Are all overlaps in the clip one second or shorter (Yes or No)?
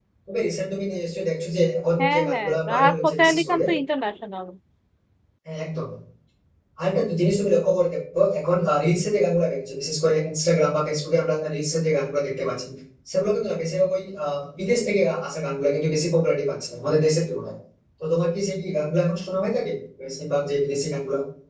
No